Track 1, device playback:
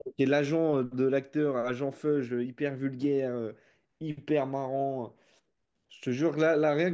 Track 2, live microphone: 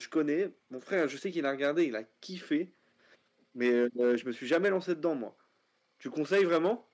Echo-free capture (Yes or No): Yes